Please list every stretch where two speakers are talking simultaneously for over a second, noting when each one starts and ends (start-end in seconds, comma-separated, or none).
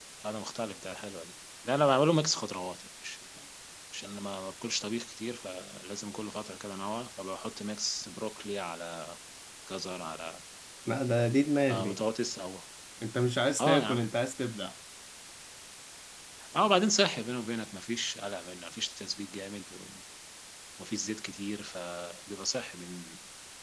none